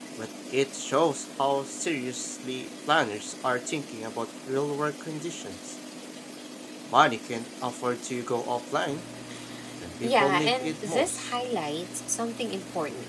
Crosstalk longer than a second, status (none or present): present